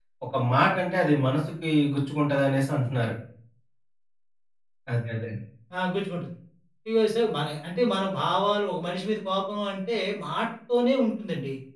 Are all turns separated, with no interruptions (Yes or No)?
Yes